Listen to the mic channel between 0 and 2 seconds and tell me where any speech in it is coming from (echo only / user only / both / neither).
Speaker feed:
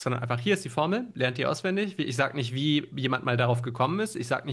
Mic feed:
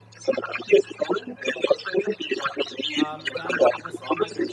echo only